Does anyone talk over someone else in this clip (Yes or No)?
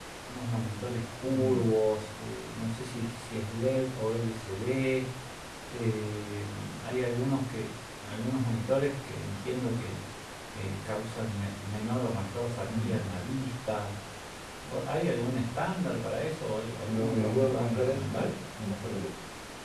Yes